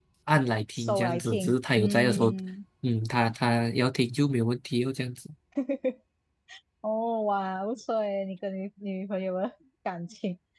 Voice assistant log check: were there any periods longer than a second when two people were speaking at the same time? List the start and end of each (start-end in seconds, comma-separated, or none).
0.7-2.3